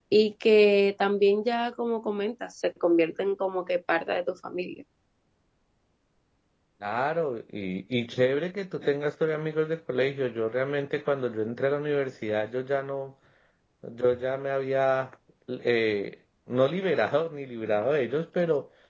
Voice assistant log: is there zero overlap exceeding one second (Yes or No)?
Yes